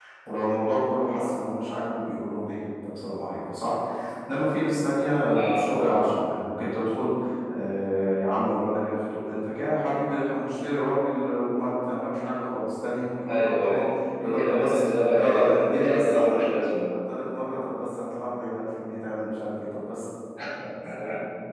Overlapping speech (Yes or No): Yes